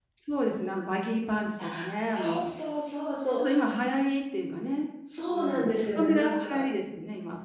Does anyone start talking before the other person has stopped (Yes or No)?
Yes